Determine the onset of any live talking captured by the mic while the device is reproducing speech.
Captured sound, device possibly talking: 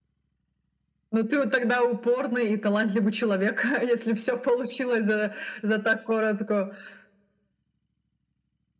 none

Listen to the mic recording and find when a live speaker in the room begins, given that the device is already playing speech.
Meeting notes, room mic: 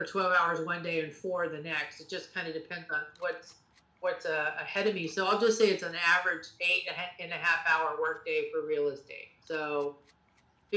none

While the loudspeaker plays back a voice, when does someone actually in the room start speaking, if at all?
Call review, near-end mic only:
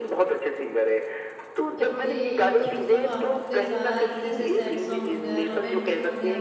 1.8 s

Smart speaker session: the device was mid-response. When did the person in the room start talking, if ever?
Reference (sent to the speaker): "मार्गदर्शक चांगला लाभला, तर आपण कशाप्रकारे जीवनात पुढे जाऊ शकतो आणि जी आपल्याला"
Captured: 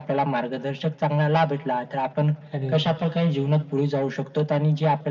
2.6 s

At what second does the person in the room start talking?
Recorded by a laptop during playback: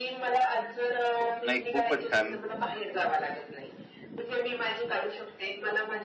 1.4 s

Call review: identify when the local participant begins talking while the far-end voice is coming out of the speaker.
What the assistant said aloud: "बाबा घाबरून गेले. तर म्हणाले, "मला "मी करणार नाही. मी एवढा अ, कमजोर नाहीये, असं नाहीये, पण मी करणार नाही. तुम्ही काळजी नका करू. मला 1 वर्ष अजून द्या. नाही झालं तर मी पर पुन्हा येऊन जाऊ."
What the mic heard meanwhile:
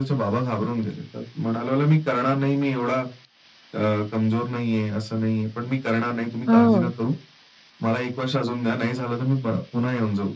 6.5 s

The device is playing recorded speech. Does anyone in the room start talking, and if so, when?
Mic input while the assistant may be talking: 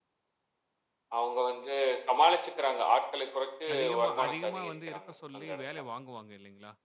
3.7 s

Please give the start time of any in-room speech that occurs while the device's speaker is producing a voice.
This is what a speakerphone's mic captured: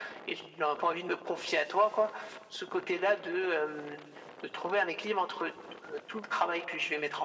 none

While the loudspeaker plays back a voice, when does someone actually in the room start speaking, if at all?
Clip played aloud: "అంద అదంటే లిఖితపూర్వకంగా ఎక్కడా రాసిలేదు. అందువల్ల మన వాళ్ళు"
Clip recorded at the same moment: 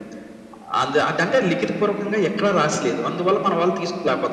none

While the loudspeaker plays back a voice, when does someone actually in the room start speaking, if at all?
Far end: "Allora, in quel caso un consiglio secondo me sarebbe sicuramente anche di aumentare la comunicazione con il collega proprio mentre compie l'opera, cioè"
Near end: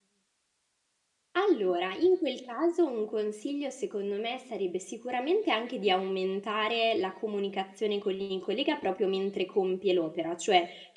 none

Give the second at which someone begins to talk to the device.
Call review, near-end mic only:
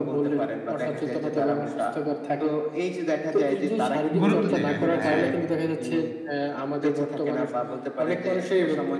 4.2 s

